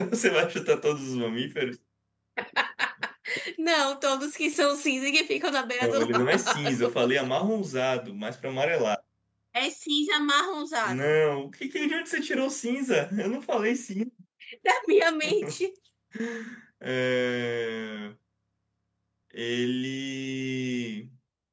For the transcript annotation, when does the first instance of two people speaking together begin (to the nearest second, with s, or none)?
6 s